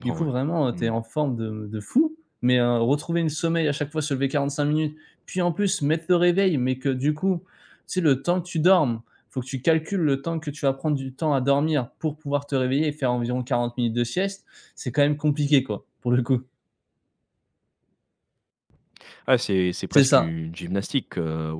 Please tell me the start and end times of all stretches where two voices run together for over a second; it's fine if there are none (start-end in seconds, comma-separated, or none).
none